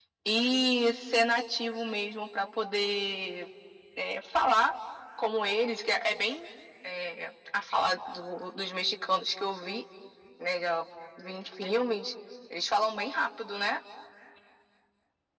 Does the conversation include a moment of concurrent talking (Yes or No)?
No